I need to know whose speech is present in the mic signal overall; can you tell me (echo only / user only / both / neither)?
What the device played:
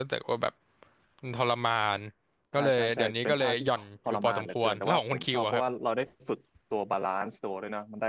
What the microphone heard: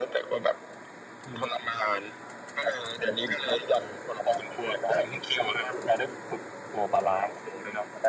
echo only